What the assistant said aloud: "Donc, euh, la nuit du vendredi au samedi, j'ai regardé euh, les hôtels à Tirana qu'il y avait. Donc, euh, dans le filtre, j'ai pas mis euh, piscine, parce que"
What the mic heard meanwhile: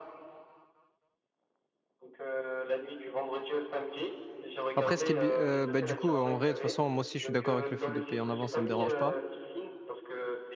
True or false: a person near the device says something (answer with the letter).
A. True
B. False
A